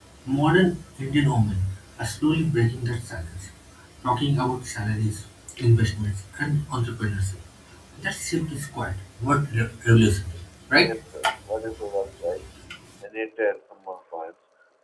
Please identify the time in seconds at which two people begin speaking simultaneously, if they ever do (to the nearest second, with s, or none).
none